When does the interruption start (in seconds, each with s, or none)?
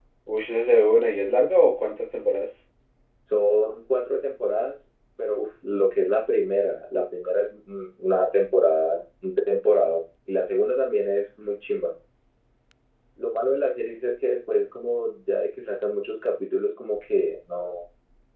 none